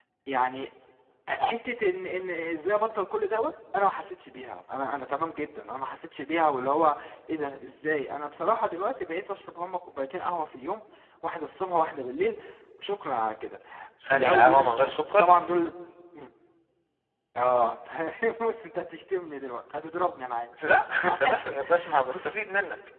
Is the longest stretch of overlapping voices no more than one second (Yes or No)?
No